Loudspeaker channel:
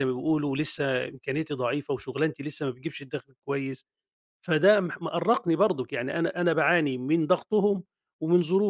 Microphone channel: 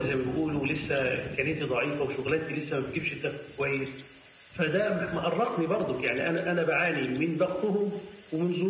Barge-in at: none

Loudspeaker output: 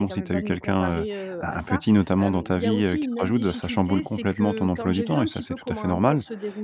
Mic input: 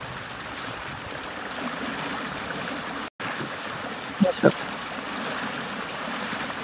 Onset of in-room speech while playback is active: 4 s

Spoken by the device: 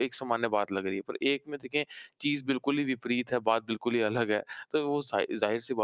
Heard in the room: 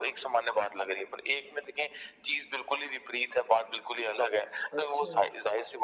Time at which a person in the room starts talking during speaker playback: 5 s

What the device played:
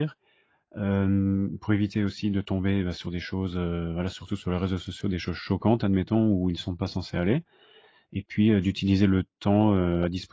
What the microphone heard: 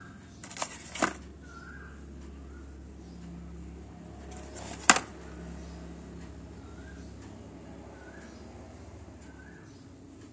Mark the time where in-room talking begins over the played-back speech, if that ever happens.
none

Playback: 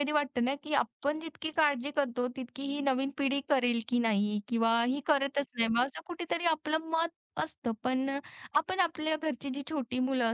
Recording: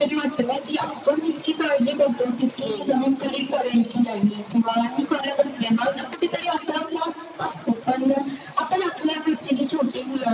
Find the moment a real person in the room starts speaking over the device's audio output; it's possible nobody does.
3 s

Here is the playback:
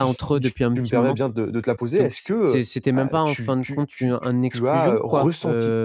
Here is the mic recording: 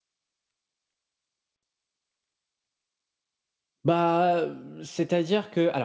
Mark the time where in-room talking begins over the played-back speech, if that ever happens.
4 s

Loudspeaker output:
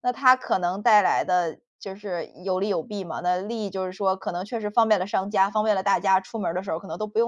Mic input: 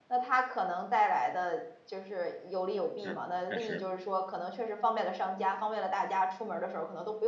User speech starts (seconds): 3 s

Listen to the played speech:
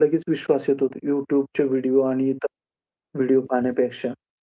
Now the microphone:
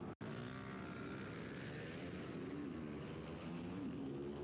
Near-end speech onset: none

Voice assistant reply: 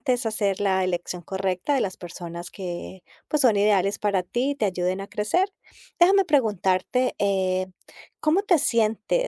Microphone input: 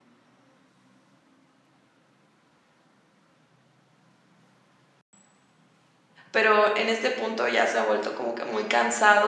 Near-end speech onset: 6 s

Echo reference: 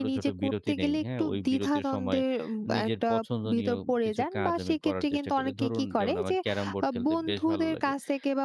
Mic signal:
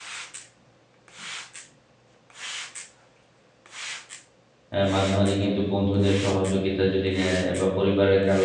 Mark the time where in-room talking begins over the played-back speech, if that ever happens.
5 s

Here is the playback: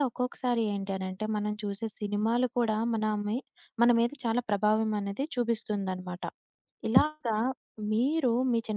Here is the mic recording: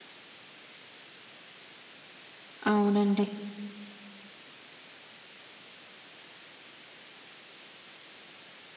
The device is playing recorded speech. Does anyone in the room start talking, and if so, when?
3 s

